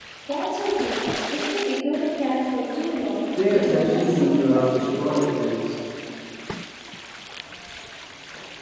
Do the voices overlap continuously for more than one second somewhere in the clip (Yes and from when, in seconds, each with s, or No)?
Yes, from 3.4 s